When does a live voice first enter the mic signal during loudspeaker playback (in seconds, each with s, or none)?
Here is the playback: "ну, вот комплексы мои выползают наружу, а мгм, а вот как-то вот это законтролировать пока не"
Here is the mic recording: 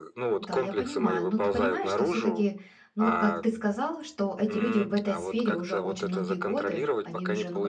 0.4 s